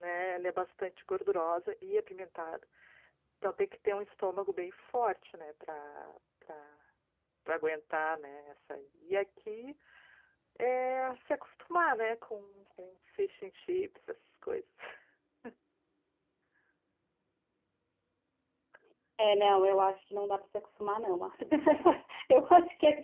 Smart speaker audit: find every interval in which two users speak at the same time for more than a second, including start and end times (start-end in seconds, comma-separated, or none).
none